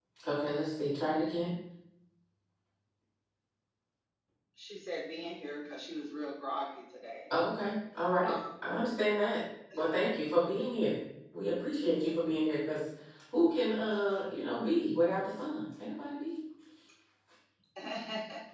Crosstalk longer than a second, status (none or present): none